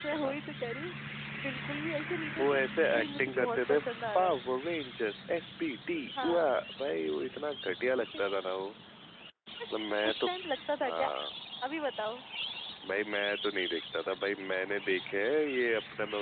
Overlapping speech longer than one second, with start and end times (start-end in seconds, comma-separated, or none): 2.4-3.8